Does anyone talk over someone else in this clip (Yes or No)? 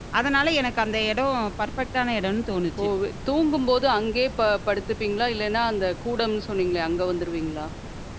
No